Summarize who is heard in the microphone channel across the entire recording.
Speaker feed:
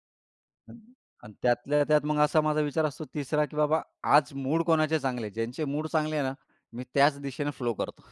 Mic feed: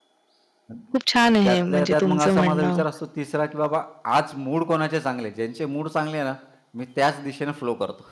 both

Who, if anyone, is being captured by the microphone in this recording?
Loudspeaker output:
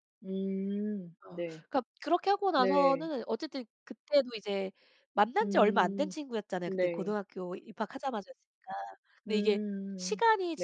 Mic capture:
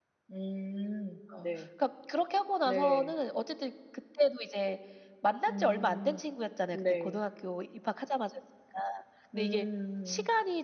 echo only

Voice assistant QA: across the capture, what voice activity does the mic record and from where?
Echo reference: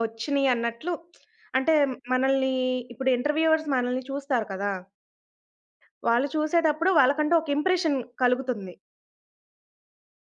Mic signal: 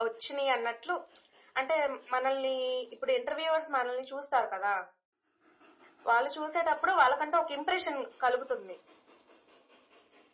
echo only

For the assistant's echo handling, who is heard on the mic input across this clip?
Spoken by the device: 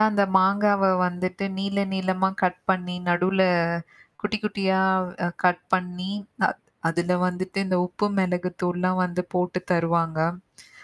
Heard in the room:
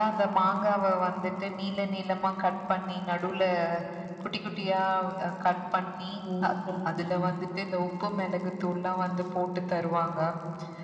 both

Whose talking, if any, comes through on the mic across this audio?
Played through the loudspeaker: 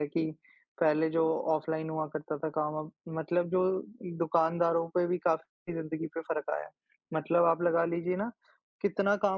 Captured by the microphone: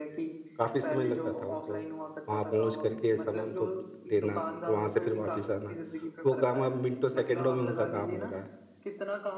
both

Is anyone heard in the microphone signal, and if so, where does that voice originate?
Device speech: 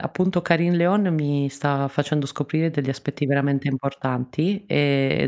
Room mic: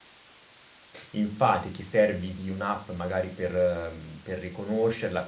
user only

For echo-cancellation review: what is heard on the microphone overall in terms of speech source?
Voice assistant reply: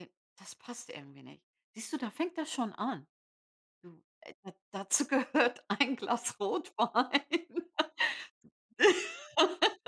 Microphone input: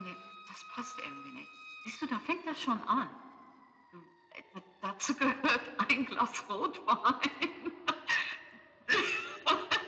echo only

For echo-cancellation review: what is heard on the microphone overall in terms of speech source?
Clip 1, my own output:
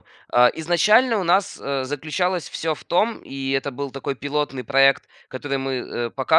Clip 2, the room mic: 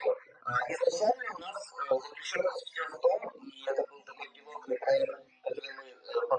echo only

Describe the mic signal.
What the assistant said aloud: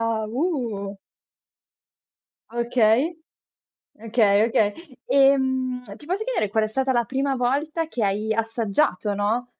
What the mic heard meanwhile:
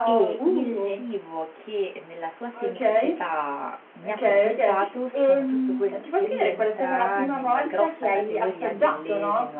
both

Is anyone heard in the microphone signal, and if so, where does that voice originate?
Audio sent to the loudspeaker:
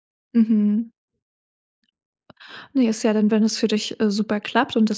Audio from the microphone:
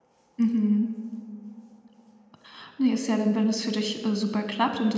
echo only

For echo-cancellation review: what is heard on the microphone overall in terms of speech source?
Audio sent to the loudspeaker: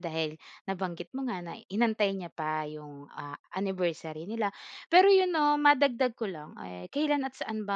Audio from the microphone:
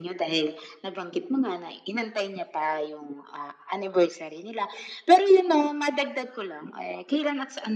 echo only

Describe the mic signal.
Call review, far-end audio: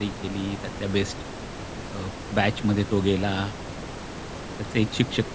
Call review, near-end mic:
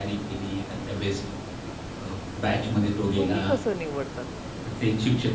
both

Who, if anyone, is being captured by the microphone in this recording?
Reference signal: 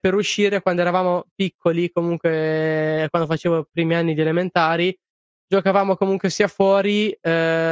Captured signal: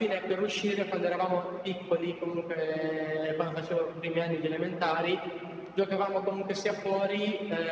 echo only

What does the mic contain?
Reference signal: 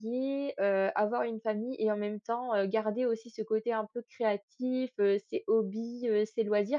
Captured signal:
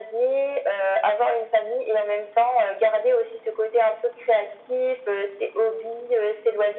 echo only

